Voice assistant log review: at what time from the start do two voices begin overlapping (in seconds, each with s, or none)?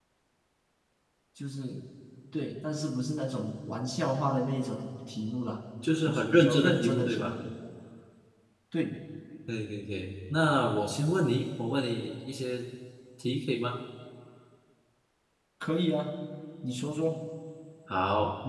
5.8 s